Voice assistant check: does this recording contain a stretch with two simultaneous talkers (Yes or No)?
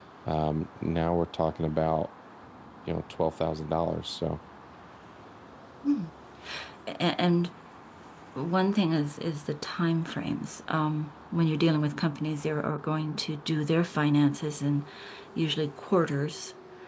No